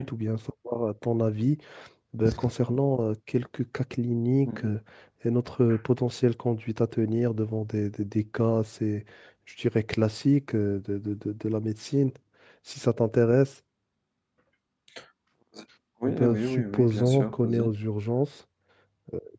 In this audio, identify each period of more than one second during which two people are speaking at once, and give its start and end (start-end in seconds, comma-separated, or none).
16.1-17.7